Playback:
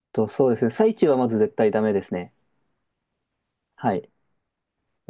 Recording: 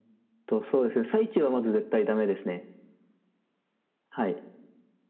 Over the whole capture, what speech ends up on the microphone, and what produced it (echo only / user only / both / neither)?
echo only